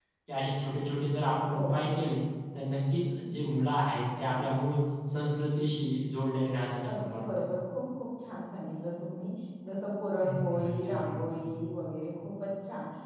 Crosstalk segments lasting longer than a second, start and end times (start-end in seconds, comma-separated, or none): 10.2-11.7